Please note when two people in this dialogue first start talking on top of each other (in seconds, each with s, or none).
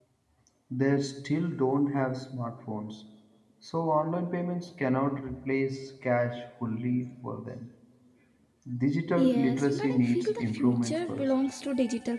9.2 s